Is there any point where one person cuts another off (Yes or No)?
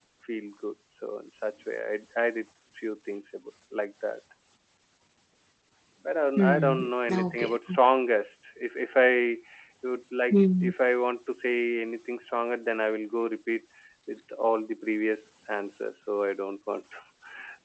Yes